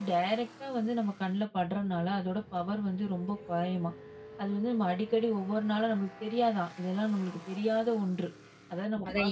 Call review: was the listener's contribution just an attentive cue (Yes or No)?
No